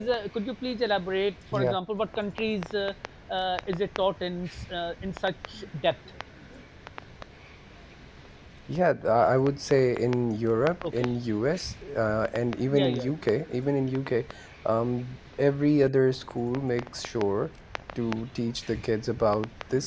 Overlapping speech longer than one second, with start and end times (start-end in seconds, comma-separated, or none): none